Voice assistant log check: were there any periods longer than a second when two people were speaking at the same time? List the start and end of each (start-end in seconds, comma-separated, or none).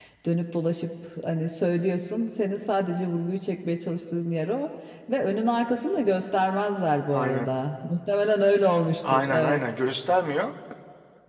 none